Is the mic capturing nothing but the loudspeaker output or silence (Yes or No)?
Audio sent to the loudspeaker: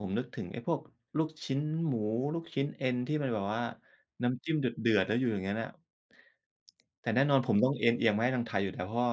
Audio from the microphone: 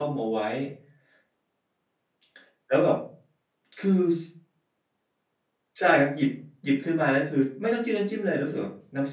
No